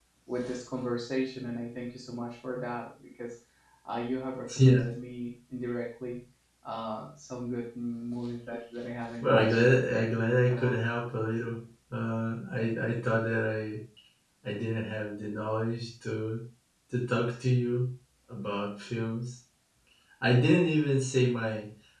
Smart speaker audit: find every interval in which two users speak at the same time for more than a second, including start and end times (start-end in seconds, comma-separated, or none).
none